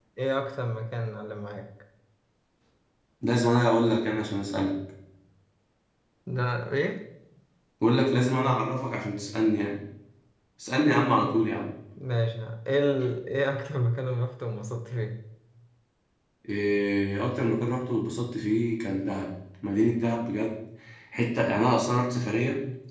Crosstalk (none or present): none